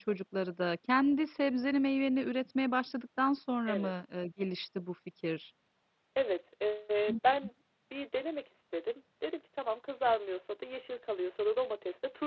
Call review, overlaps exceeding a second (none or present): none